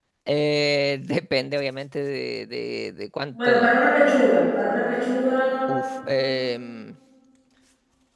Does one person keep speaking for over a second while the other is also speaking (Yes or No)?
No